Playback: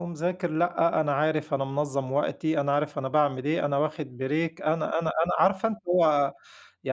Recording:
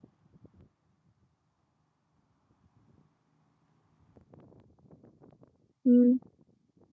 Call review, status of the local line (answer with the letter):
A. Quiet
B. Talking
B